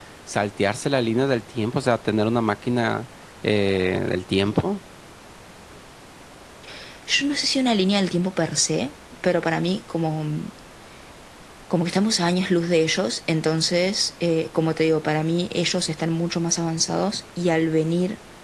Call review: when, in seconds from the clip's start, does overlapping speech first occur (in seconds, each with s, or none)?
none